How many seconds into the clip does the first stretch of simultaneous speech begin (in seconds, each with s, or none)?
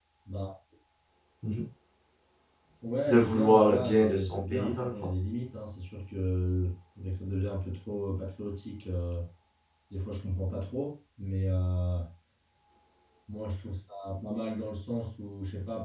3.1 s